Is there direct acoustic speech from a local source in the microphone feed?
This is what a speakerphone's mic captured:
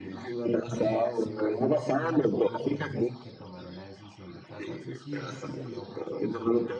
Yes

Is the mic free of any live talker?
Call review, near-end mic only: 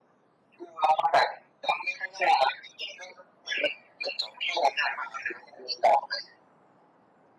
Yes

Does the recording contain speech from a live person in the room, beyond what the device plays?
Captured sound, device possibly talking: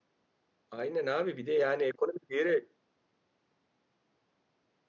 Yes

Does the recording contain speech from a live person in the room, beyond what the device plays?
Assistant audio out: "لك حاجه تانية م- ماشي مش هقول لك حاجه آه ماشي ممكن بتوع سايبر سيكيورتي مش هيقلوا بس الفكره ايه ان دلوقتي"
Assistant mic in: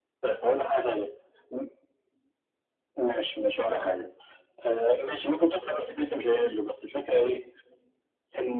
No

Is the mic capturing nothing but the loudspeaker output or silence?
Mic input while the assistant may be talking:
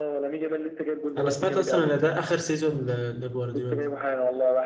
No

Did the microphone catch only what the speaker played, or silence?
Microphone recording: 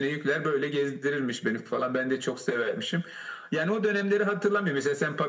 Yes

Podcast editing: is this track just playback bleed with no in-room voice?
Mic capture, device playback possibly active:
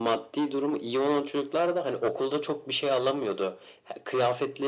Yes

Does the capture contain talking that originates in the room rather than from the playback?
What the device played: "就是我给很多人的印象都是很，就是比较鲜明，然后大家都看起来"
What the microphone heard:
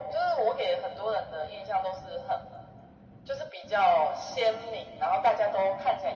No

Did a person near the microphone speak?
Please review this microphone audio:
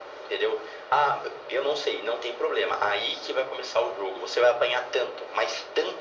No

